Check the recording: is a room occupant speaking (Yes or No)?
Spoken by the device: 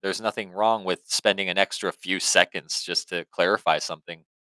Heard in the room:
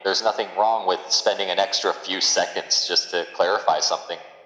No